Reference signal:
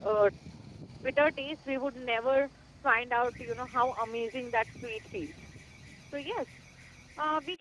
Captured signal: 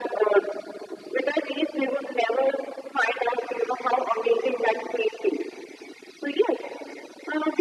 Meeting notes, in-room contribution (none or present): none